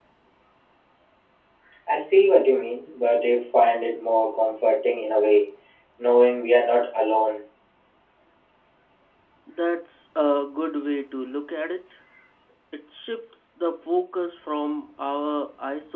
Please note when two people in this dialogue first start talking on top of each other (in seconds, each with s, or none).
none